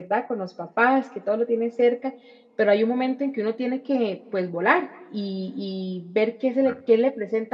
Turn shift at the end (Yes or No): No